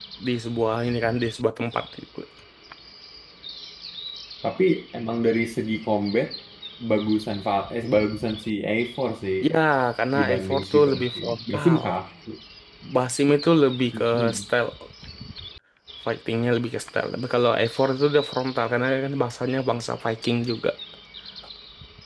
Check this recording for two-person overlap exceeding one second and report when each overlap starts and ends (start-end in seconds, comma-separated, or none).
10.2-11.8